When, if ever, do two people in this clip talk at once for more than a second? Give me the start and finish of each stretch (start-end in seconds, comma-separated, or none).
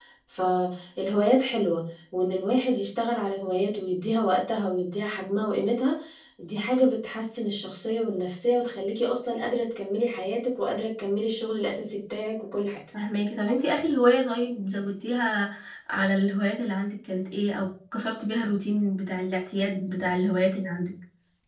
none